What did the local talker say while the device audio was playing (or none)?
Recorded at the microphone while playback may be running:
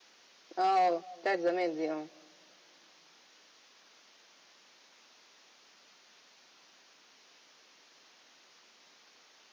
آه، بتاعة زمان دي آه.